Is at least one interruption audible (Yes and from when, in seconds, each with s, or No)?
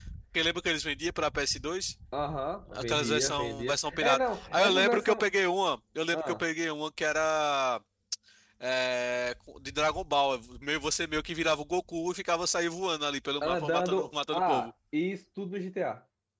Yes, from 2.7 s